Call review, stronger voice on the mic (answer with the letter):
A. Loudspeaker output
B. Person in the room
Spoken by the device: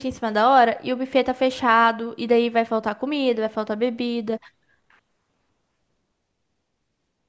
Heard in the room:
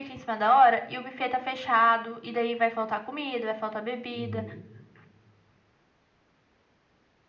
A